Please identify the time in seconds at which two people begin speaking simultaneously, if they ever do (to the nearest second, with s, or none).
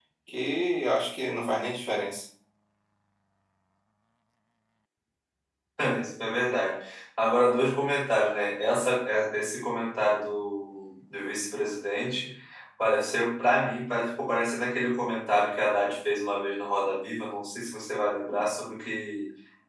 none